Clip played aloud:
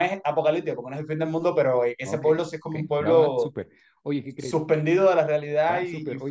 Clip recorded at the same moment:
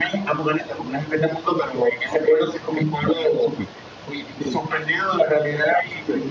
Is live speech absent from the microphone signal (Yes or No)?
Yes